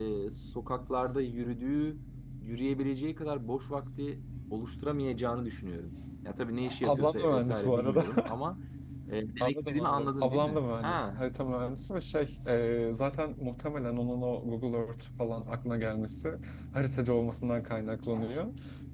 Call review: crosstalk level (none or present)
present